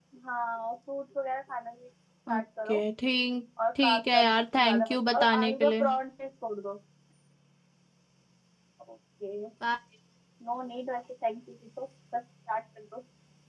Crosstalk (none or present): present